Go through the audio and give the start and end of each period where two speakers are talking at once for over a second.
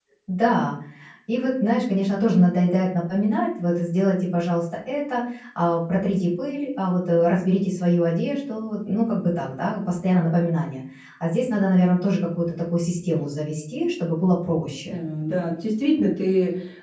none

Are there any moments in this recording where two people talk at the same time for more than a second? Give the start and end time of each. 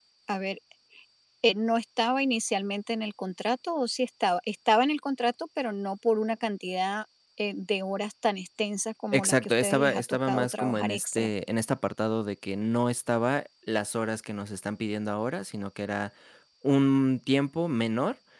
9.1-11.3

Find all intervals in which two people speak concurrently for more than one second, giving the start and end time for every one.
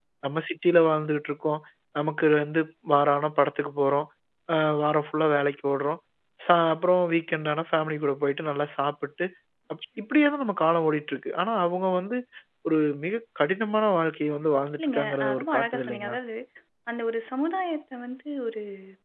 14.8-16.2

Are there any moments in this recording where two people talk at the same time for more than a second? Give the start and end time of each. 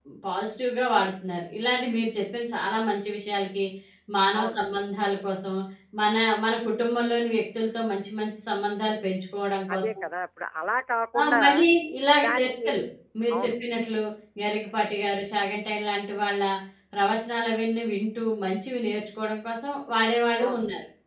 none

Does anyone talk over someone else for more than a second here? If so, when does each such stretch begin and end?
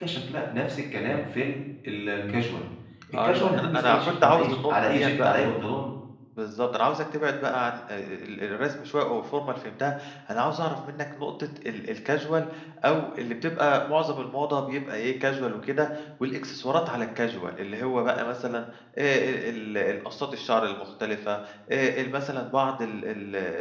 3.1-5.4

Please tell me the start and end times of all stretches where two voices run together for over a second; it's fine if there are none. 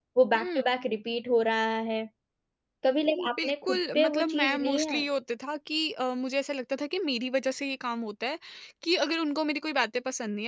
3.3-5.0

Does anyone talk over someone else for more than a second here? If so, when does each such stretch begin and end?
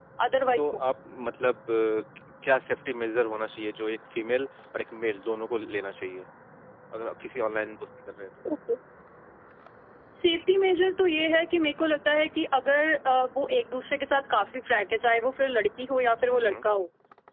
none

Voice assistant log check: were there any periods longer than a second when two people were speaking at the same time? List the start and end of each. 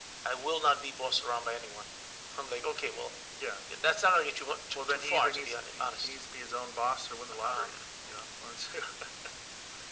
4.8-6.1

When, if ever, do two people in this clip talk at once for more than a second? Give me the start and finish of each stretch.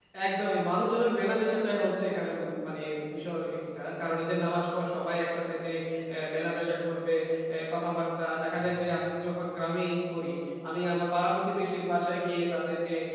none

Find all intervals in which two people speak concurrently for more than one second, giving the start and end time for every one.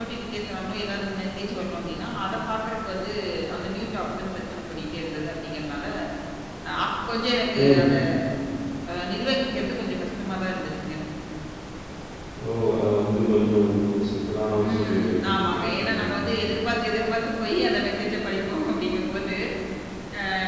14.7-16.1

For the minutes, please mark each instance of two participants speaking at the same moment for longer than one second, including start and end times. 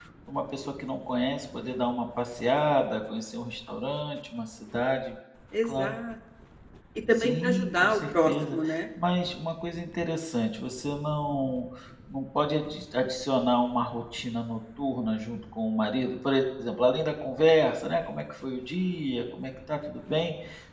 7.2-8.6

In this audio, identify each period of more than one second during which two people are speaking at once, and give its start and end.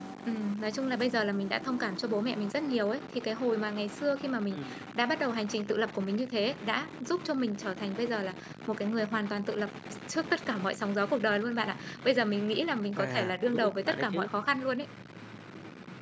13.0-14.3

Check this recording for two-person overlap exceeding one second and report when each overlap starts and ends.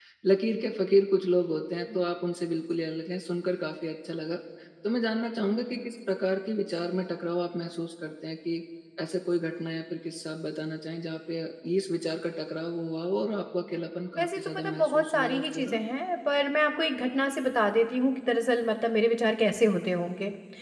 14.2-15.8

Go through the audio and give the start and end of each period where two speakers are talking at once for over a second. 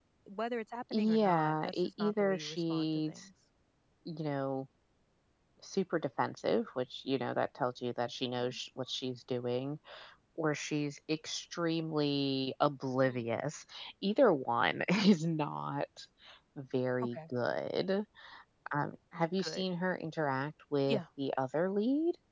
0.9-3.2

